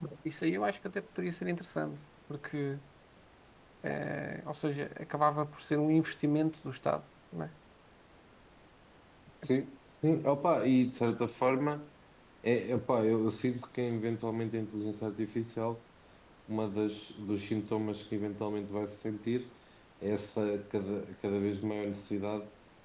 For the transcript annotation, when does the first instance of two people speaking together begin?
none

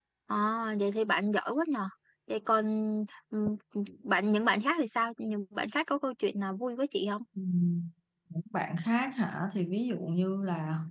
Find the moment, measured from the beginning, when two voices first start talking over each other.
none

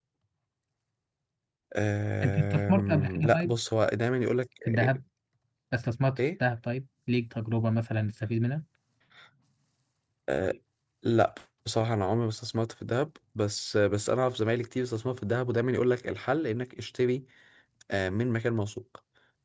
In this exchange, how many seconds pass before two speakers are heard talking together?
2.2 s

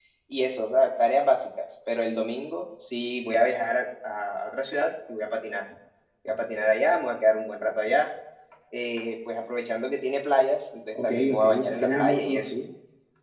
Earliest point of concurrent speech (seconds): 10.9 s

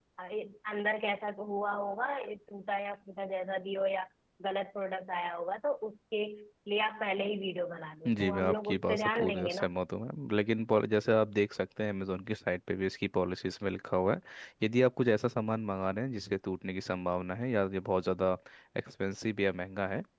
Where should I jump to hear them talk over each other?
8.1 s

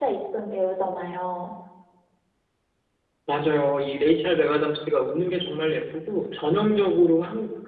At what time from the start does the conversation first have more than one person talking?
none

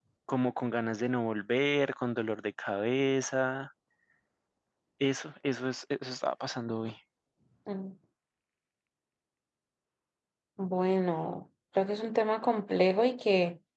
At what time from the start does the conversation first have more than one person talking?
none

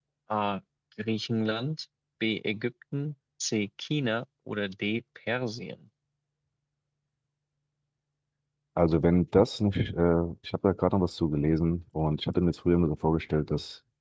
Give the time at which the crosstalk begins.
none

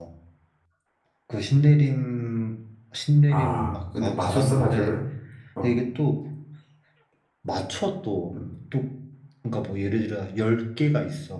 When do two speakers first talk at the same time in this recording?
3.3 s

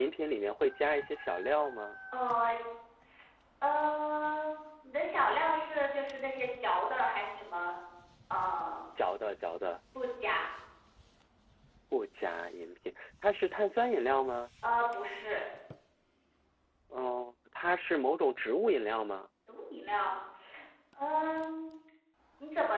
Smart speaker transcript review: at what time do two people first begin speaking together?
none

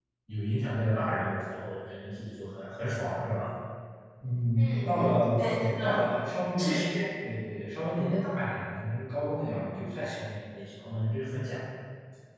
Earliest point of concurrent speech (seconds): 4.6 s

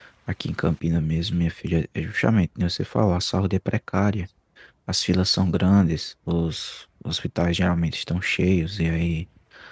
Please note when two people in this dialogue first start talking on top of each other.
none

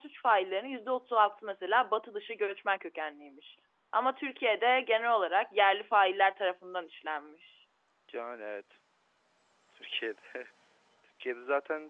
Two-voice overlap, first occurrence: none

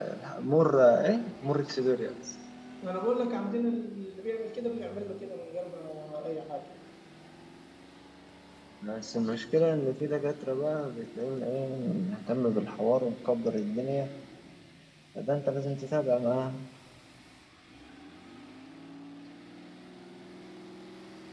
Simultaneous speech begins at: none

